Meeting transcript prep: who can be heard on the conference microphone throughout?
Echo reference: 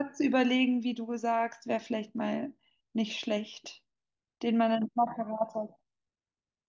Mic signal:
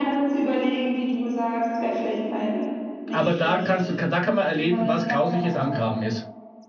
both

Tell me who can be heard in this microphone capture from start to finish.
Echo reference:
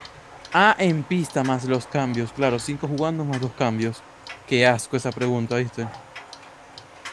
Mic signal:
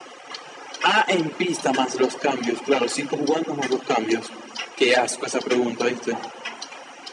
echo only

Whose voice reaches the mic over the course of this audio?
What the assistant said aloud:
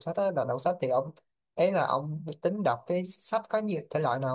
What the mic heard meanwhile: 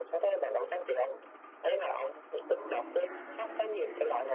both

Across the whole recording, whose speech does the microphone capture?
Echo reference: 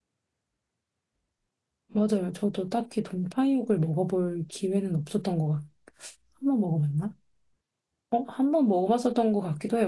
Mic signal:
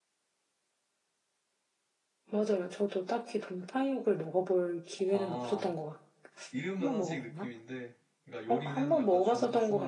both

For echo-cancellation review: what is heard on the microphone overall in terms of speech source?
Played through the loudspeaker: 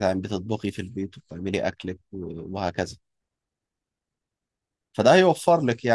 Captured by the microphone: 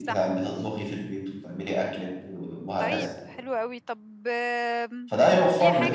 both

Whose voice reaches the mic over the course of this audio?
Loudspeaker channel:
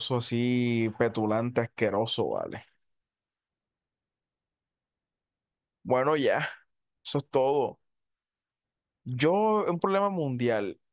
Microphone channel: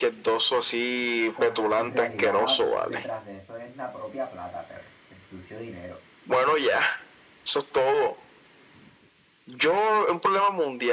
both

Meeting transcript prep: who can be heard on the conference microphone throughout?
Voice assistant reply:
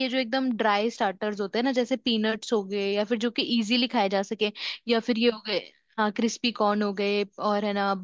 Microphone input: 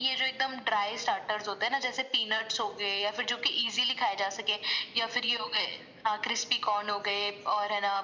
echo only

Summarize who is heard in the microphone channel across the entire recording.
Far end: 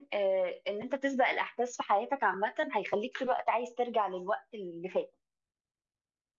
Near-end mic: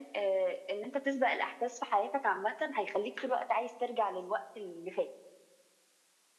echo only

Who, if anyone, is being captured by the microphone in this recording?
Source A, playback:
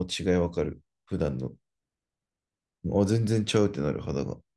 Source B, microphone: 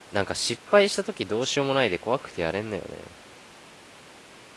user only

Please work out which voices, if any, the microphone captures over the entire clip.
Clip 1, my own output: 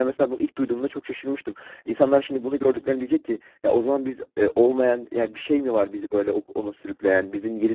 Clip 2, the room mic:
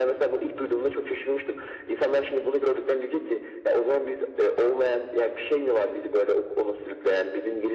echo only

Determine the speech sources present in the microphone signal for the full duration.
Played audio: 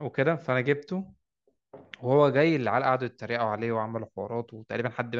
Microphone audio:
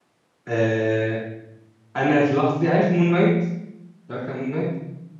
user only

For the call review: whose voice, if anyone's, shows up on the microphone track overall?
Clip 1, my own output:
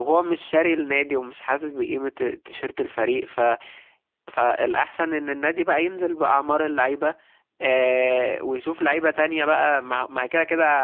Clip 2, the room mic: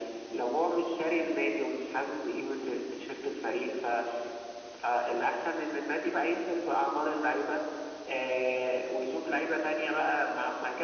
echo only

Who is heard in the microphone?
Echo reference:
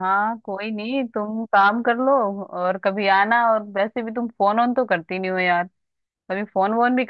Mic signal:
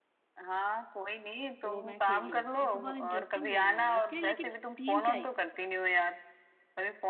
both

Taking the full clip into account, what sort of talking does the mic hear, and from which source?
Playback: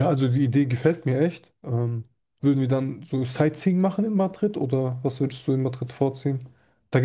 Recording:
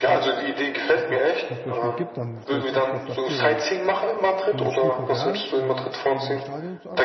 both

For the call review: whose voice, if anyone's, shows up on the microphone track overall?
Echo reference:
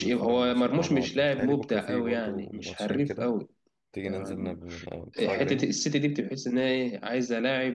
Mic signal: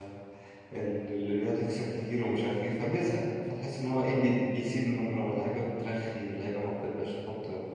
user only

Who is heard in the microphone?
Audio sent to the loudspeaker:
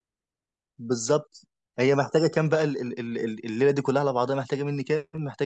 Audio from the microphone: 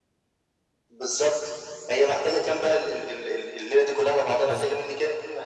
both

